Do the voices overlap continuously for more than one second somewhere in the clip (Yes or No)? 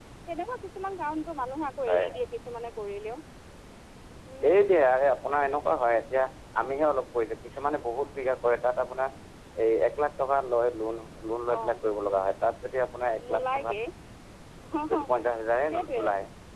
No